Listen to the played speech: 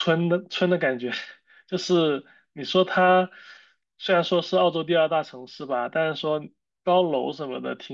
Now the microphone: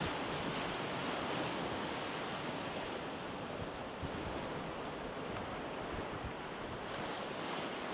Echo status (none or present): none